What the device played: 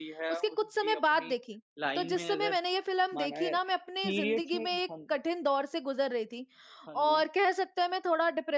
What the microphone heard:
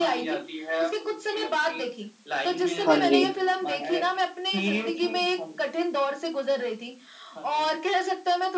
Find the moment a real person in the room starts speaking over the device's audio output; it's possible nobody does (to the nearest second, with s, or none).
3 s